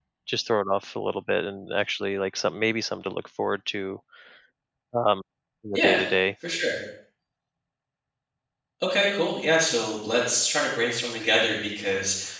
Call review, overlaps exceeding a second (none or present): none